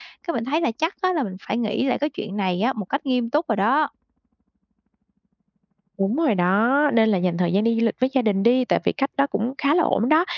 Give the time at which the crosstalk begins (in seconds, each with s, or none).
none